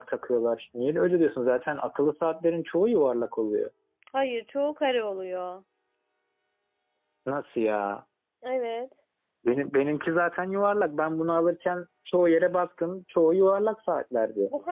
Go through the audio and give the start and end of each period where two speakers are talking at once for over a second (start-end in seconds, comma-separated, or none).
none